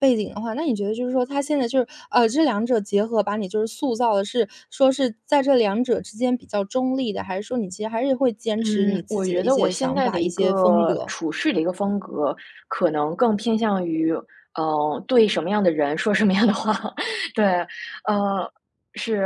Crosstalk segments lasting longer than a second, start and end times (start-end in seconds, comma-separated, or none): 8.6-11.1